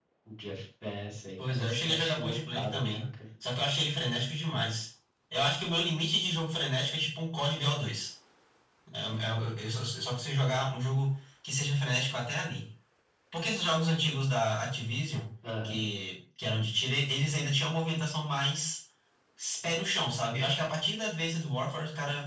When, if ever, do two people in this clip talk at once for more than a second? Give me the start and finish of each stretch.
1.4-3.1

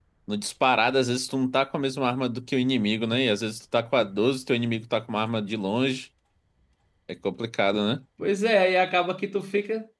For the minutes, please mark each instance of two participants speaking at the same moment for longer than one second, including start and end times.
none

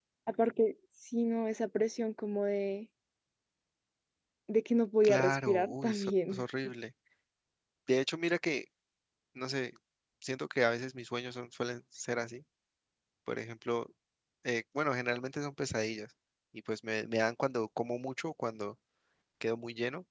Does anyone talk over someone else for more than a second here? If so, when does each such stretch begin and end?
5.0-6.4

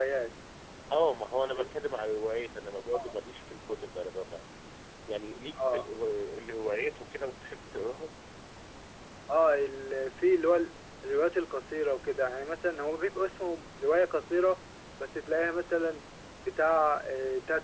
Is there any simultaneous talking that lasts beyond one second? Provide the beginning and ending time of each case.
none

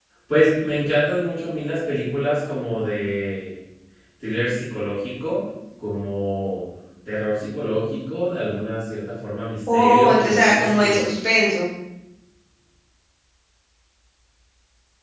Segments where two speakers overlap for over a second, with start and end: 9.7-11.0

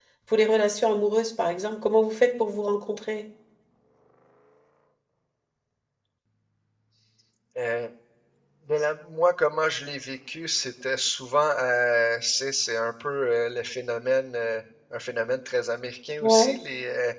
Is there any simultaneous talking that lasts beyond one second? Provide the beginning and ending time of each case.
none

